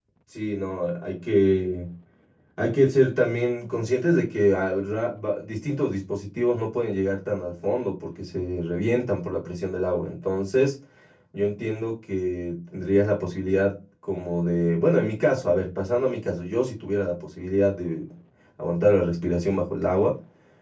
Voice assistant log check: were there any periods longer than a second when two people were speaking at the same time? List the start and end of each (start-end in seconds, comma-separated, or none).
none